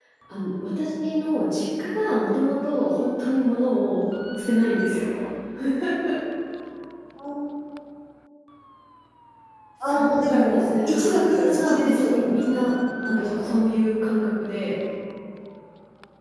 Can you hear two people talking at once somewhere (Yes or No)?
Yes